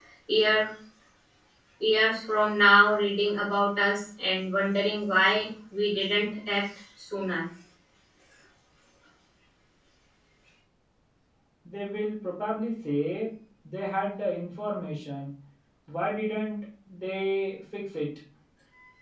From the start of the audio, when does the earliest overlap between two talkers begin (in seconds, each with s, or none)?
none